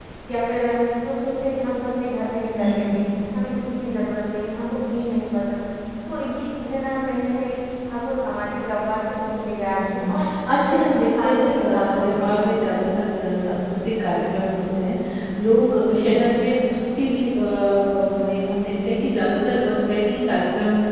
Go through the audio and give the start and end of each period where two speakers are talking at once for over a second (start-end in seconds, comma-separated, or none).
10.7-12.8